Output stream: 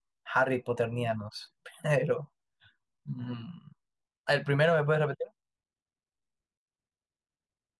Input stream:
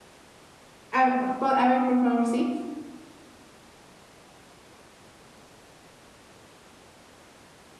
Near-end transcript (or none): A, ver, po- a ver, por favor, sí.